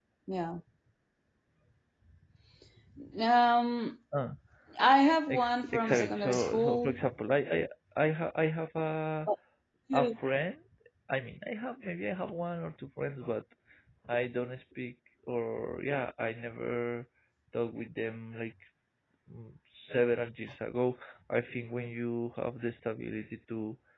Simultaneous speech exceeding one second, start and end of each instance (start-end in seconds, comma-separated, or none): 5.3-6.9